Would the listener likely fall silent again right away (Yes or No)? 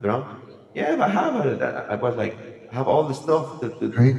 Yes